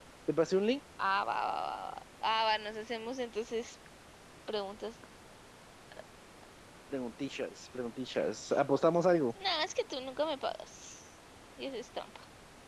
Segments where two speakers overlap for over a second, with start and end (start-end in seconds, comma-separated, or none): none